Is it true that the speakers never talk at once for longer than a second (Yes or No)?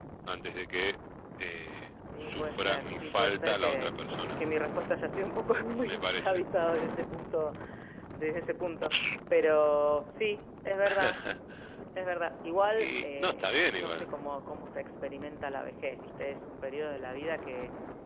No